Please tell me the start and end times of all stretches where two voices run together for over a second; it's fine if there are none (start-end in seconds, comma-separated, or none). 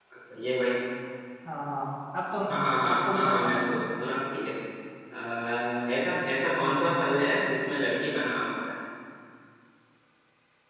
2.9-4.2